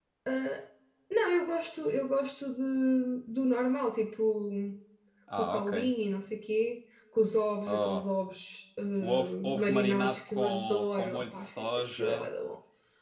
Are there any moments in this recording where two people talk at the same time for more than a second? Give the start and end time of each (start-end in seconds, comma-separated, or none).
9.0-12.3